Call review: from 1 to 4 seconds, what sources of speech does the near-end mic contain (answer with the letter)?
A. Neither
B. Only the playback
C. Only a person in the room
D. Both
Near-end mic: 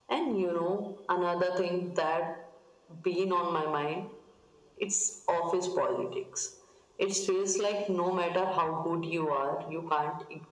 B